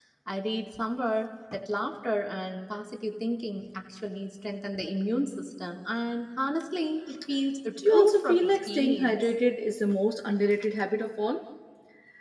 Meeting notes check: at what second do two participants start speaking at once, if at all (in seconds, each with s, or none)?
7.8 s